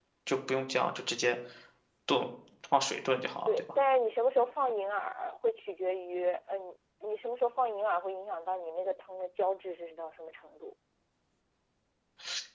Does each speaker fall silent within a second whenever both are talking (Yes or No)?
Yes